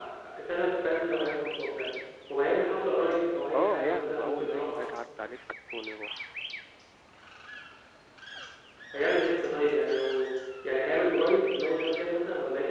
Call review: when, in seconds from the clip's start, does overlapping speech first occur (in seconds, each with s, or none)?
3.5 s